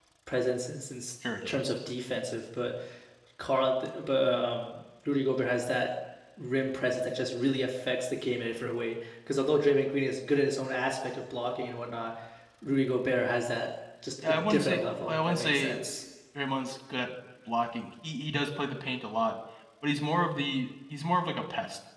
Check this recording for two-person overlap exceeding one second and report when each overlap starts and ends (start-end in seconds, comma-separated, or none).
14.2-15.8